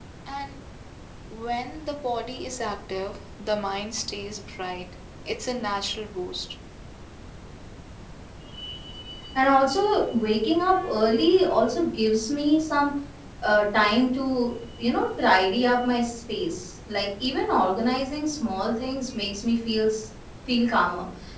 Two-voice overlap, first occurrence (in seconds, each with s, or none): none